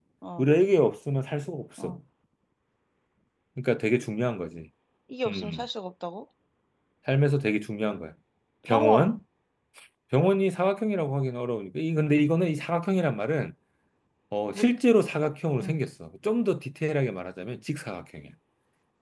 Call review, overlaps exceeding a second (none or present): none